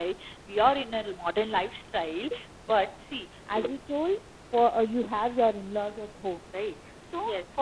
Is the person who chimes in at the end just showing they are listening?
Yes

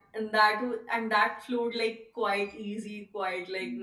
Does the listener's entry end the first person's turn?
Yes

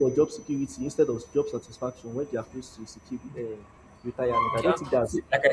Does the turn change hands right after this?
Yes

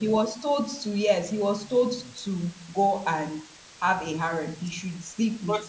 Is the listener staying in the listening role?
Yes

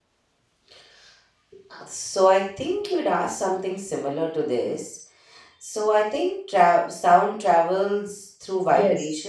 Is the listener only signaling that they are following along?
No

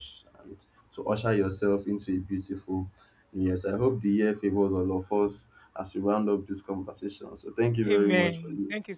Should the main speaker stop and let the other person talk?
Yes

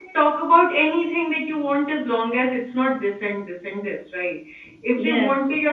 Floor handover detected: No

